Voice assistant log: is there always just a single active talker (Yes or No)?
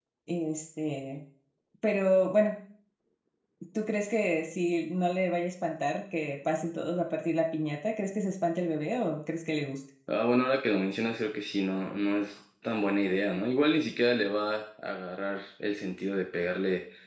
Yes